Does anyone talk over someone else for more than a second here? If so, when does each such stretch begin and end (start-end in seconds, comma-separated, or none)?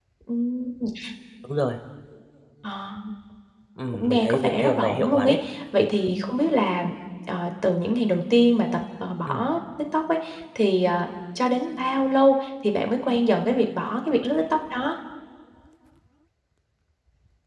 3.9-5.4